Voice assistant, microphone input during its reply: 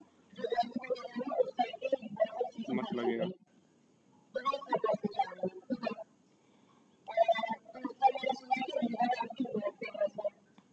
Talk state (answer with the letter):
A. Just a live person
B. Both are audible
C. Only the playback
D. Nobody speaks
B